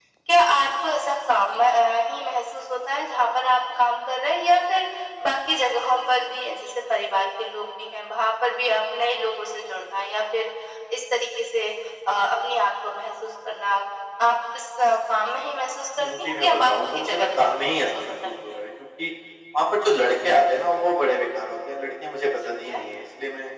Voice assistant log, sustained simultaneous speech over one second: present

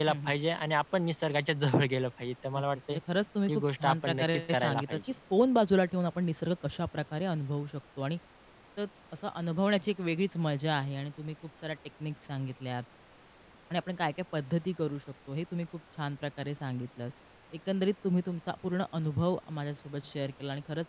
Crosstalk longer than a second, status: present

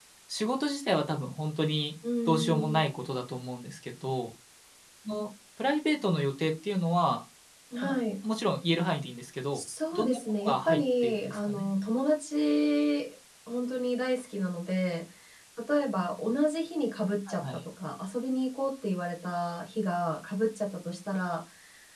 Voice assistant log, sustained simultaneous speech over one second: present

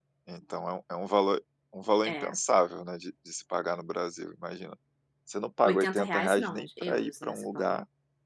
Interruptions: present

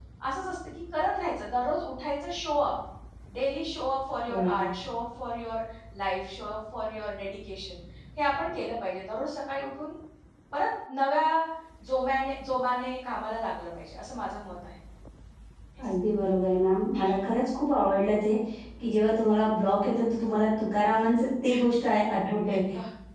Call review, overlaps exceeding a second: none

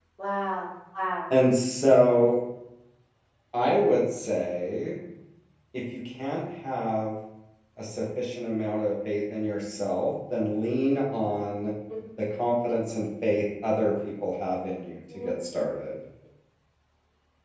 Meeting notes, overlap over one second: none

